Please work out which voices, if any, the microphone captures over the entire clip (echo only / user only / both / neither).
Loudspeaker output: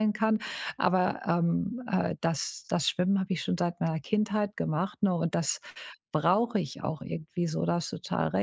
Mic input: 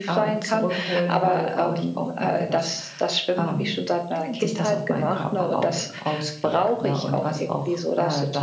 both